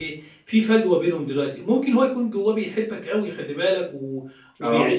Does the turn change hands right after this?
No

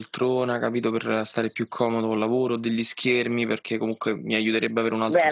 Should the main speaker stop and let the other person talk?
Yes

